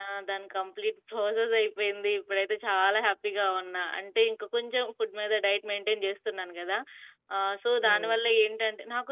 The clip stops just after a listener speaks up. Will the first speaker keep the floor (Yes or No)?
Yes